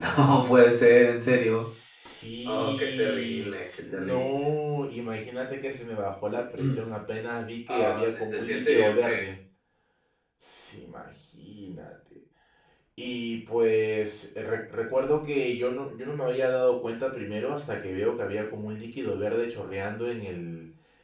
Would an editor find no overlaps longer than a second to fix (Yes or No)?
No